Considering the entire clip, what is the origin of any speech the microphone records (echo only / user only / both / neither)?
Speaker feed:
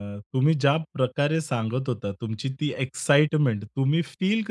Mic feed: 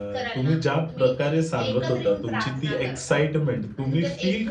both